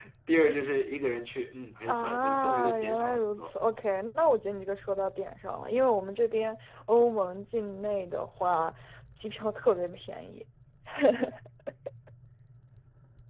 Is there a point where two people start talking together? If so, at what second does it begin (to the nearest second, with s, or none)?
2 s